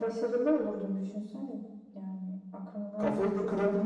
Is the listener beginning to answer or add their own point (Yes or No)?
Yes